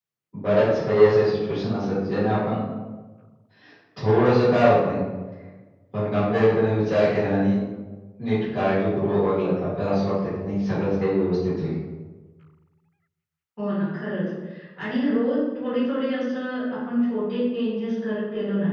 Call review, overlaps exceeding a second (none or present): none